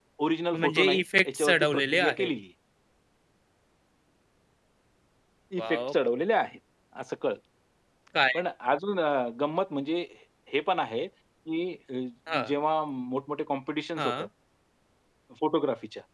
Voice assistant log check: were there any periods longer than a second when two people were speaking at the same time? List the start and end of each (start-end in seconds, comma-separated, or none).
0.6-2.3